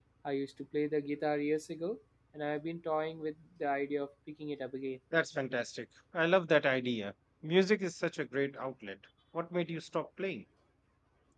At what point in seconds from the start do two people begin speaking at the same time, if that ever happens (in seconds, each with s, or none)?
none